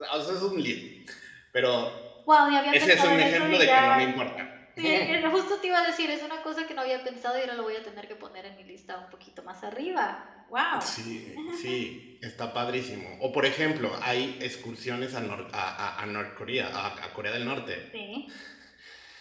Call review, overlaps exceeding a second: present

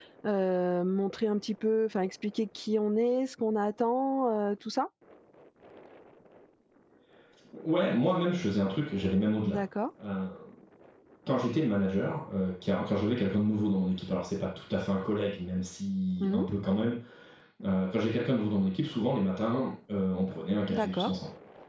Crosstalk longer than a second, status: none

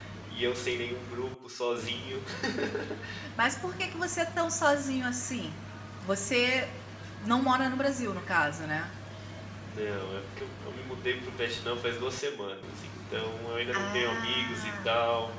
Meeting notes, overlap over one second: present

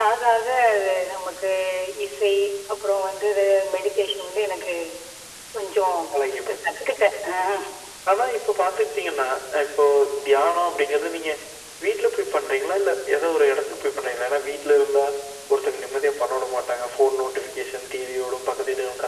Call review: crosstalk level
none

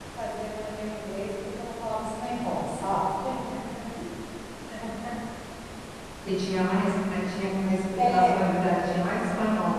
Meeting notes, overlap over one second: none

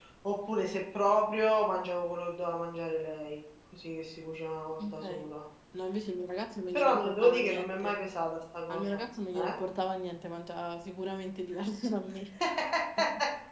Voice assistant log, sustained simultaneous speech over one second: present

